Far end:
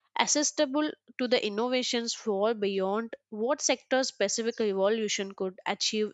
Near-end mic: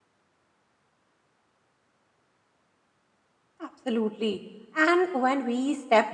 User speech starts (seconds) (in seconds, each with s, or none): 3.6 s